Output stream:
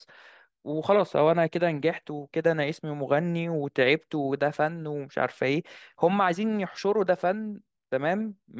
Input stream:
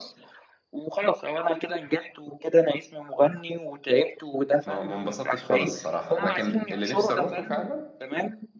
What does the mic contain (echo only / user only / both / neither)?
both